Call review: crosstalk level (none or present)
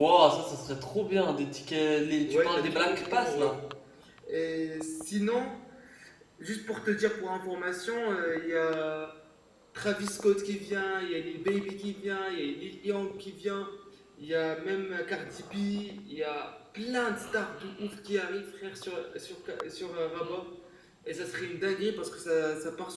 present